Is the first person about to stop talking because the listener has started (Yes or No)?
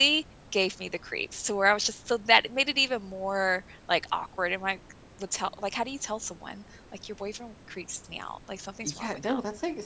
Yes